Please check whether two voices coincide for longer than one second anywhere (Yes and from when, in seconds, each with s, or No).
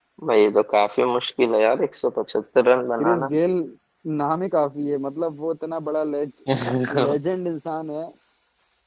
No